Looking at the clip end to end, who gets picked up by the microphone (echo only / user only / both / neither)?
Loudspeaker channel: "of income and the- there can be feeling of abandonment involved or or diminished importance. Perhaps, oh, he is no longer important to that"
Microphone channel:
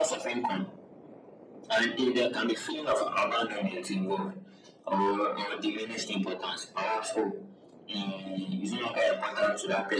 echo only